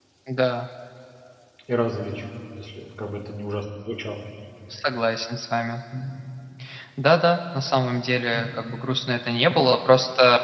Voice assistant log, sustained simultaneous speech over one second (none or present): none